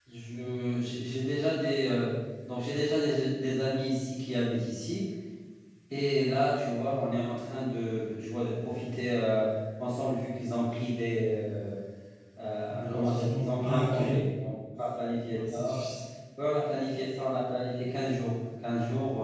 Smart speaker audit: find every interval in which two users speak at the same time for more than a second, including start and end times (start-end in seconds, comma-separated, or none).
12.7-14.0